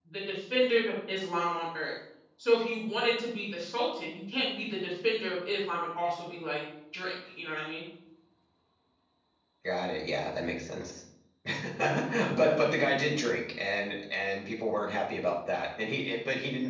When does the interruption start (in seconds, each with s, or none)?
none